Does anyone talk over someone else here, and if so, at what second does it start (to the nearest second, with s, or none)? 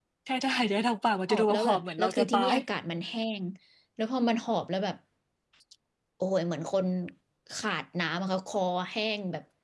1 s